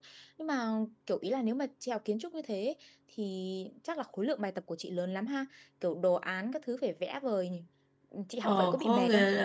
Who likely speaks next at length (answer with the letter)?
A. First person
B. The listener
B